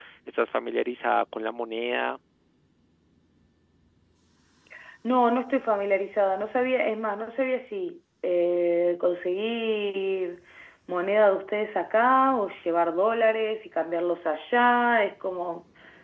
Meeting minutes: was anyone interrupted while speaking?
No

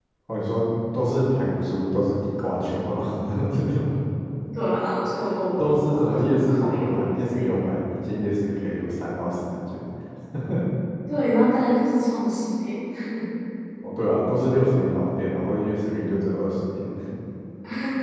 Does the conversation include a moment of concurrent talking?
Yes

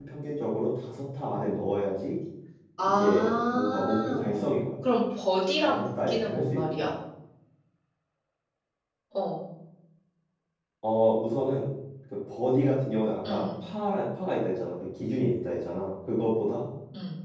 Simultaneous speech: Yes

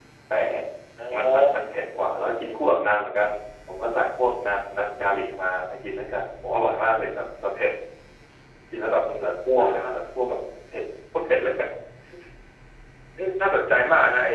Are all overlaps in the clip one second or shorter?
Yes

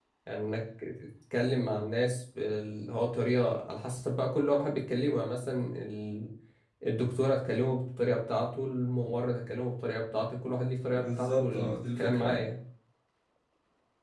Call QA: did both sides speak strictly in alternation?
No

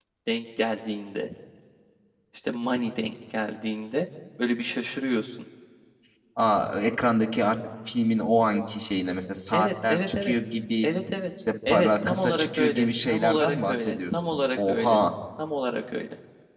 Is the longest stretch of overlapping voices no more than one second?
No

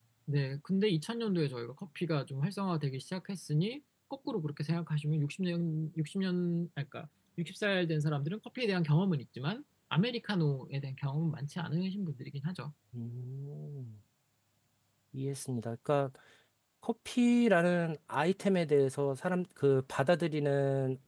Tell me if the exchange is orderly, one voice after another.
Yes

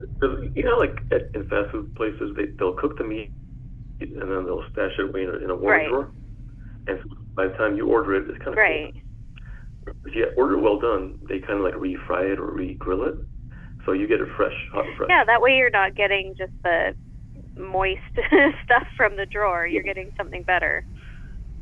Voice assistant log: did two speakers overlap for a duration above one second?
No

